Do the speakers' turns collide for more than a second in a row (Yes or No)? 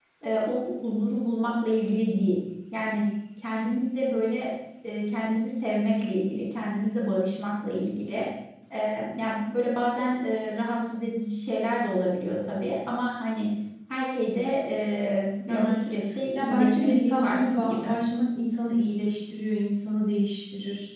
Yes